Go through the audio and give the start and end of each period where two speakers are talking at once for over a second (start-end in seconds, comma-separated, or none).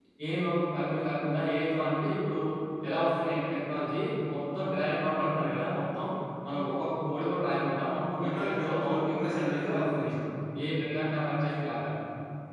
8.3-10.1